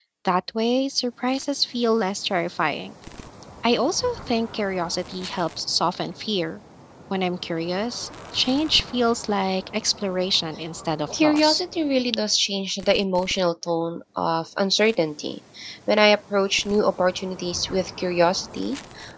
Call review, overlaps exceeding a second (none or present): none